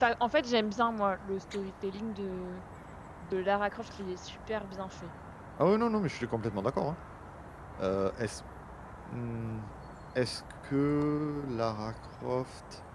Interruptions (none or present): none